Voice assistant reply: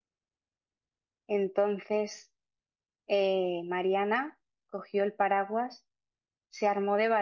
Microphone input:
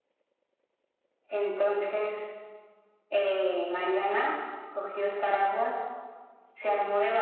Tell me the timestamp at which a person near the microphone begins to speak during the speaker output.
none

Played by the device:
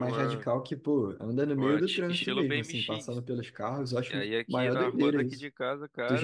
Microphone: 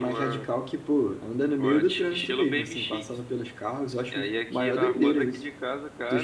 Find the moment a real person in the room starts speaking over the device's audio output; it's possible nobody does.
none

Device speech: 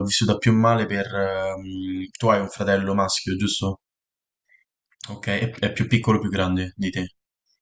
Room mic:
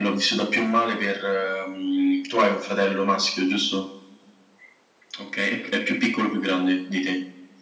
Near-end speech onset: none

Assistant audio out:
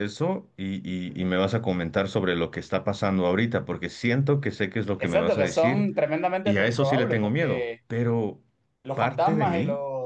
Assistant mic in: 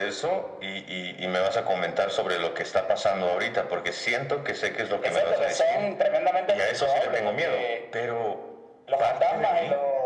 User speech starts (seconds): none

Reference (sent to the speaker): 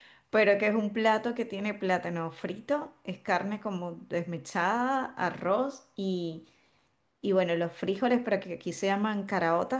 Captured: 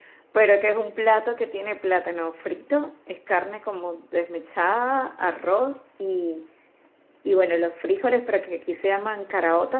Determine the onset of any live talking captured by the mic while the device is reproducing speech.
none

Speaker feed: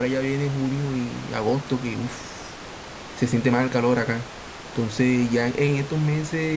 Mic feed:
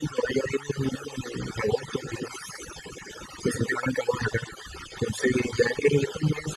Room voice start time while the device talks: none

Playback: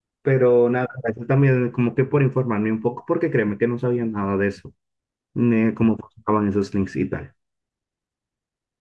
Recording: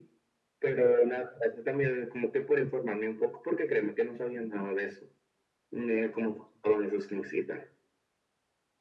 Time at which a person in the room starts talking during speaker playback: none

